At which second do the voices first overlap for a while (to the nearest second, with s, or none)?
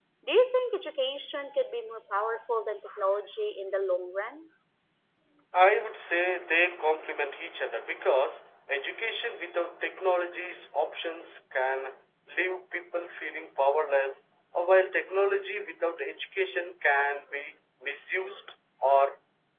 none